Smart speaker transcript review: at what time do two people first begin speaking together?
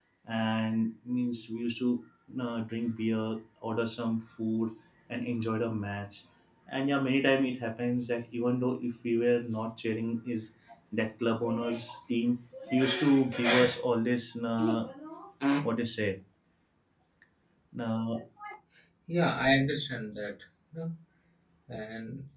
none

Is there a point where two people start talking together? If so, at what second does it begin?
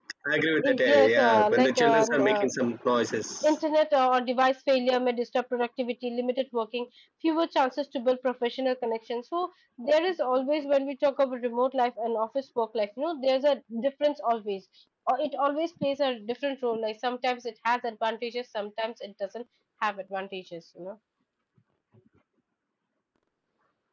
0.6 s

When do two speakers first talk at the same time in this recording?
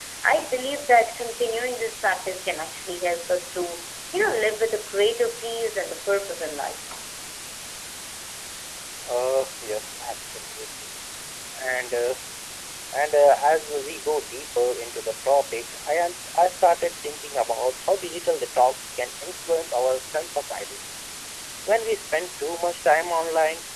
none

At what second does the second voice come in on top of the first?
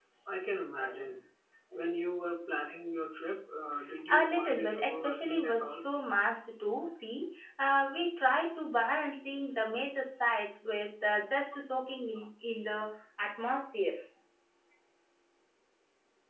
4.1 s

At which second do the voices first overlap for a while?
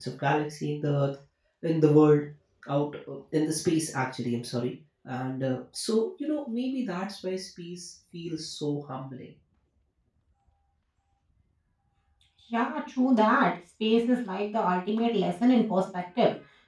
none

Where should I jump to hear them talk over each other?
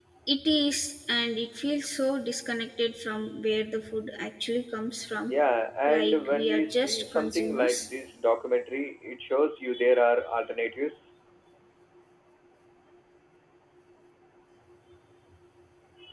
5.9 s

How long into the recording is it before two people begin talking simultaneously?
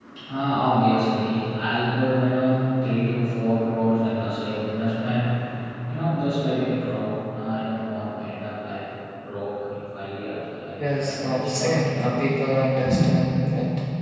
10.8 s

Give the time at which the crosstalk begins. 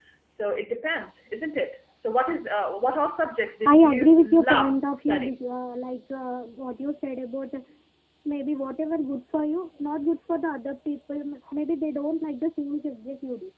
3.6 s

